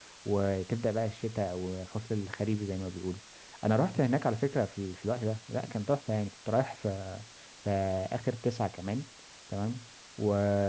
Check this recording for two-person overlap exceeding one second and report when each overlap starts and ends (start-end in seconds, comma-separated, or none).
none